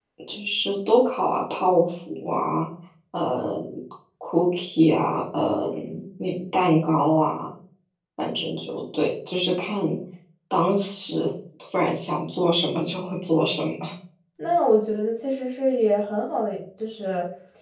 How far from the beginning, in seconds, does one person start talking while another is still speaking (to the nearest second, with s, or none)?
none